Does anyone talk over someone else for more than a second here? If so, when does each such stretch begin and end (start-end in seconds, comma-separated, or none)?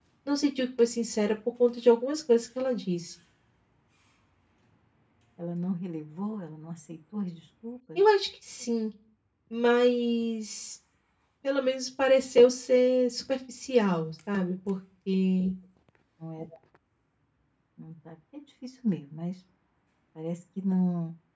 none